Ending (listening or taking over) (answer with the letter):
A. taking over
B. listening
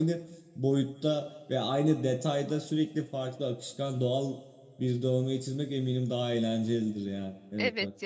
A